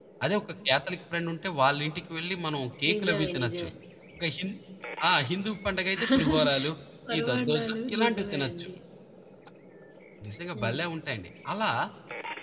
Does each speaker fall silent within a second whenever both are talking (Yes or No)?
No